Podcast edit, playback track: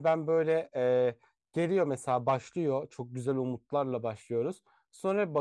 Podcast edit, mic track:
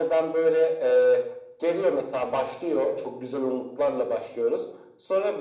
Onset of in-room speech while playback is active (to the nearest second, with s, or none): none